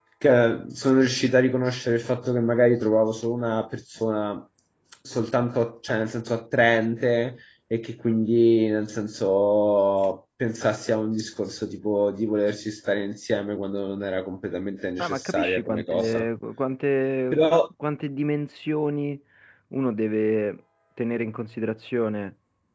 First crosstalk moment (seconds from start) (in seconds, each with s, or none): 15.0 s